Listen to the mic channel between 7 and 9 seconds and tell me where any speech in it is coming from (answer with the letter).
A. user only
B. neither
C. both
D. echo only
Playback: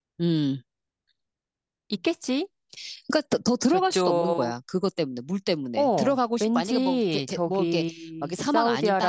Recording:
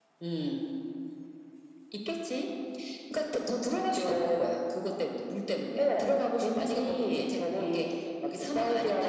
D